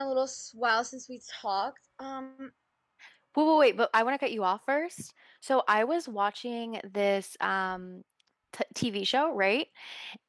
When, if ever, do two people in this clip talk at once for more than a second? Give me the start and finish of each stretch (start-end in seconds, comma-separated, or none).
none